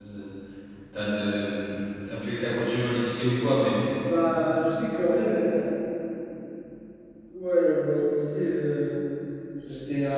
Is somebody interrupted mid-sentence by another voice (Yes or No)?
No